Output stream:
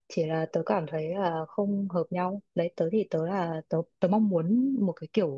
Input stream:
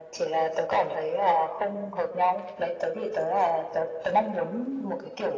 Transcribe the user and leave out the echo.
none

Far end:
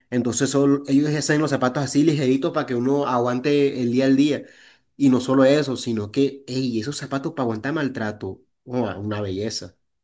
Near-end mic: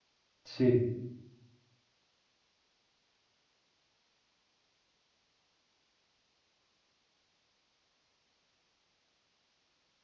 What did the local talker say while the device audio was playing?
Sí.

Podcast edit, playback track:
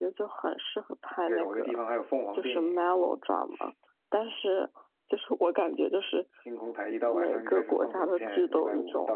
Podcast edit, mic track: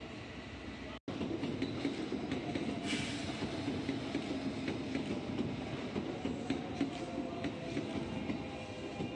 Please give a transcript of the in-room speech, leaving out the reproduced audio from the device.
none

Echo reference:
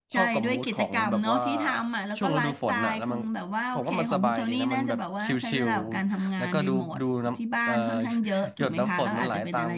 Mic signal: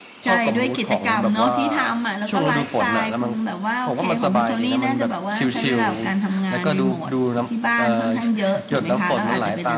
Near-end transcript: none

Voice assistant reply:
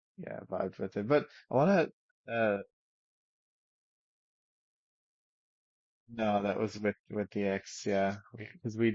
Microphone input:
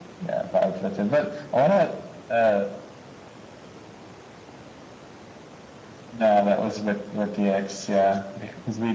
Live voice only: none

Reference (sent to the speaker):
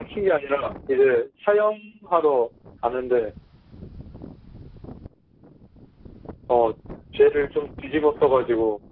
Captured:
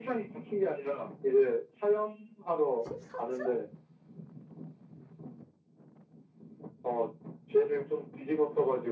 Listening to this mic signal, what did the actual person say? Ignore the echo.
14층?

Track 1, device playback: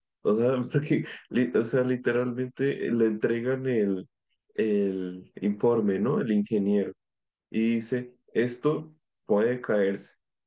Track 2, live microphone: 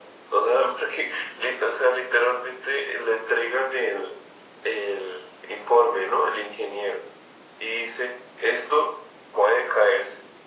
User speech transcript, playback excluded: none

